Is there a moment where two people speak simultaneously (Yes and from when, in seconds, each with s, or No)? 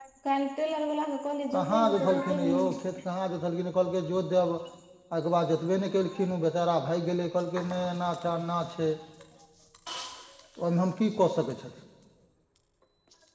Yes, from 1.5 s